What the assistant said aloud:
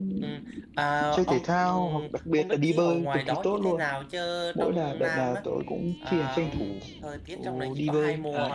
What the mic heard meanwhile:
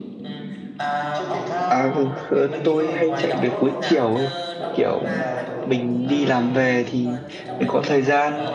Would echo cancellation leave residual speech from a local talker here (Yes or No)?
Yes